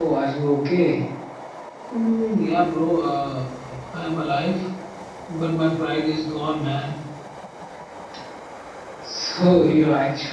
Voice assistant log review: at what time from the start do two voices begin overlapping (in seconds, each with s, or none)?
none